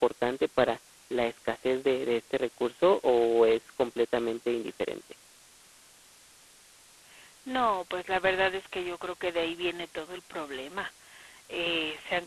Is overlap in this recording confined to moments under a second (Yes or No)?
Yes